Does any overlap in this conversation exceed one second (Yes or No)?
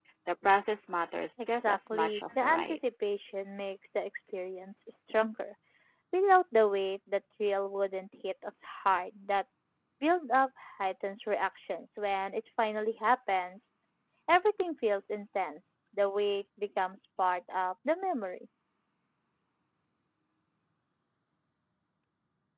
Yes